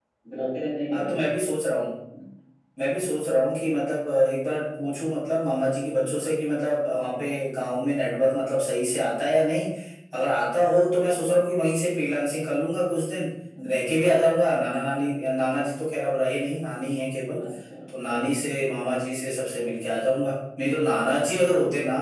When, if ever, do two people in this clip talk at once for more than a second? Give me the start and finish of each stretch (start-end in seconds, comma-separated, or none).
none